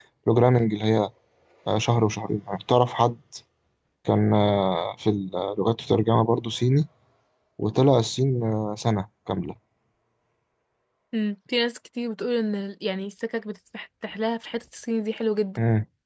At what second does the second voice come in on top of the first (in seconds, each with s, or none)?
none